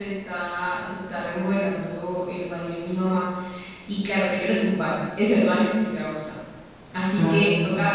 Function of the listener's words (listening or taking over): listening